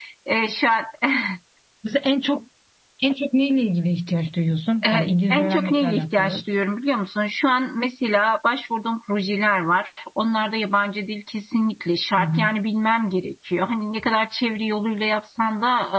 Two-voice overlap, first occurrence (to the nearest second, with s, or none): 5 s